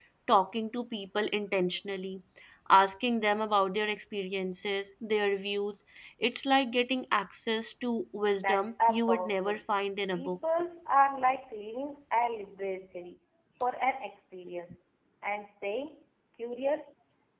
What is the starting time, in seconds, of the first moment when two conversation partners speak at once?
8 s

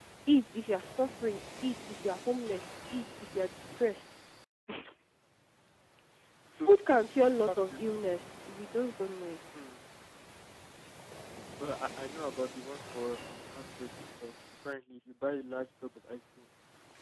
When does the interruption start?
7 s

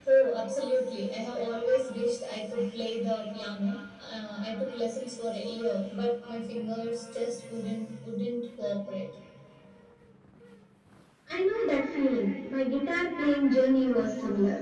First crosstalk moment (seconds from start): none

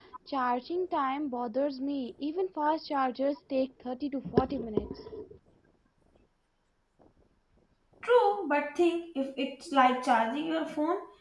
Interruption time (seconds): none

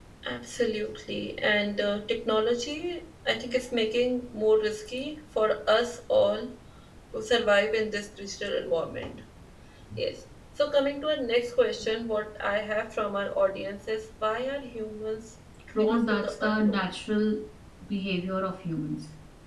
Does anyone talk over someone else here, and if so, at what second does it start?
16 s

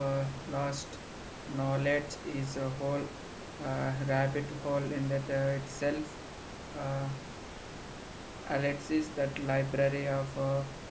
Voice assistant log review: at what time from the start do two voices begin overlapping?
none

